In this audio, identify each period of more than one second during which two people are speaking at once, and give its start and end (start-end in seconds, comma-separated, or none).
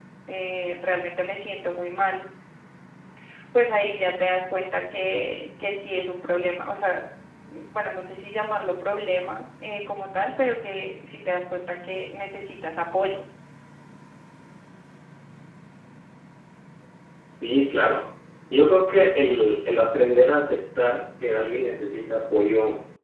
none